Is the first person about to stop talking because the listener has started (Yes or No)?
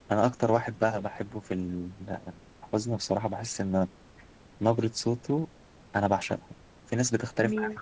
No